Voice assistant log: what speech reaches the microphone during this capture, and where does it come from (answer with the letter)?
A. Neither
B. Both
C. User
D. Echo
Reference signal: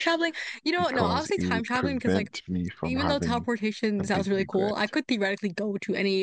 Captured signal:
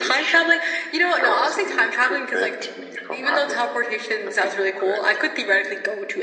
D